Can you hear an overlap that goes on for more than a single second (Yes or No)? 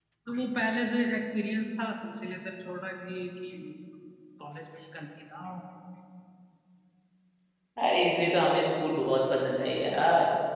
No